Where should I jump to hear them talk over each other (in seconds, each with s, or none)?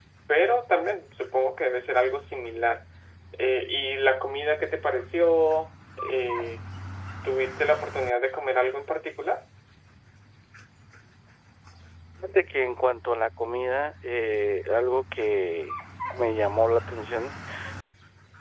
none